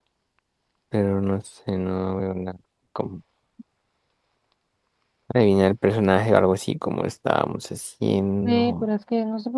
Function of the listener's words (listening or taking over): taking over